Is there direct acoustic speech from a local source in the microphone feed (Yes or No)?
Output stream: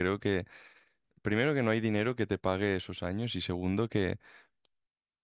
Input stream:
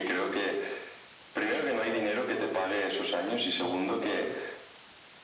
Yes